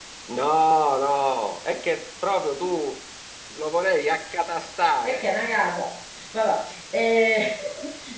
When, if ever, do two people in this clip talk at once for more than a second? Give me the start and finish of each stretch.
none

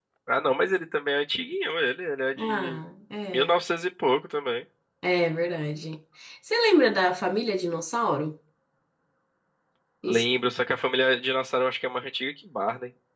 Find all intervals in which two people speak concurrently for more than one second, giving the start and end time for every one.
none

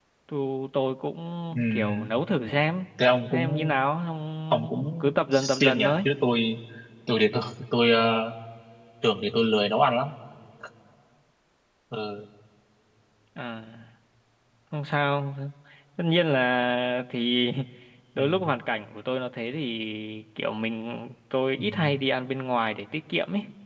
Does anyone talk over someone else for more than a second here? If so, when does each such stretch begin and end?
4.5-6.0

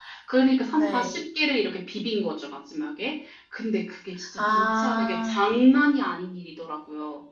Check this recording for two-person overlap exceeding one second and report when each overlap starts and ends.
4.4-5.6

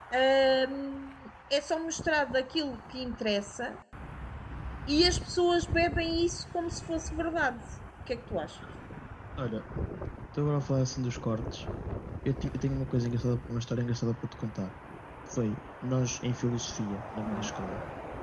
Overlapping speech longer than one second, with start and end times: none

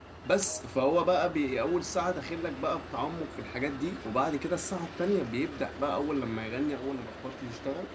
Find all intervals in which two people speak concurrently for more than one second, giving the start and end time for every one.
none

